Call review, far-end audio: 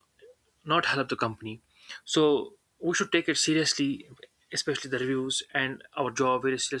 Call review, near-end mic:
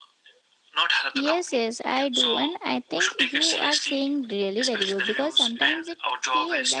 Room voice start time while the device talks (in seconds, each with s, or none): 1.1 s